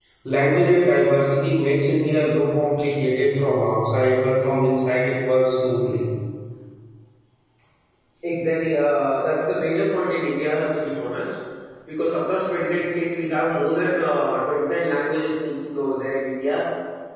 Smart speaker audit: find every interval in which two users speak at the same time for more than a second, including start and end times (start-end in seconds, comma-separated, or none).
none